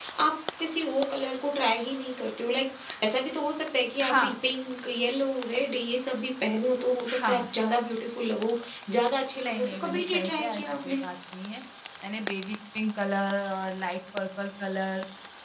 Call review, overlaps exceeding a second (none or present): present